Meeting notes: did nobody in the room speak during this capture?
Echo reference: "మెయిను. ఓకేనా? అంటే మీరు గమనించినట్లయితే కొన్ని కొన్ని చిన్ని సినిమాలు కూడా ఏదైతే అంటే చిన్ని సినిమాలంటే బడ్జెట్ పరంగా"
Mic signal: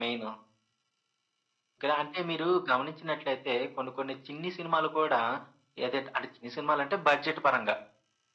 Yes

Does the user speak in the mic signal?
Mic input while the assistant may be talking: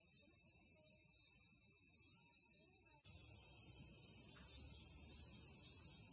No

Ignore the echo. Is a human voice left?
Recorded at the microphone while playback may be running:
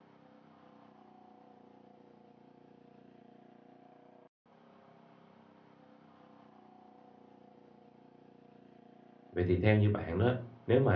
Yes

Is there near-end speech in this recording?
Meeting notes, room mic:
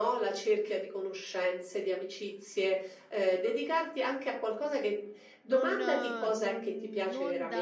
Yes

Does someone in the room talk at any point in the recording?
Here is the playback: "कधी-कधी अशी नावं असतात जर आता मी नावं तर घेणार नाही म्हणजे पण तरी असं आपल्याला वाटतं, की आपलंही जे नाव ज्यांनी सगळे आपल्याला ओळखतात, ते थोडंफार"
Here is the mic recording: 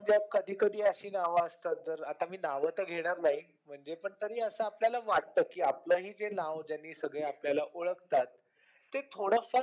No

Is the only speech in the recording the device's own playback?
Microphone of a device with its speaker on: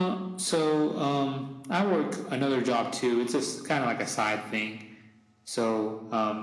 Yes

